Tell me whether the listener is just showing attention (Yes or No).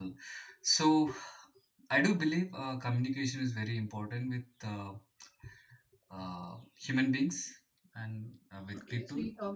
No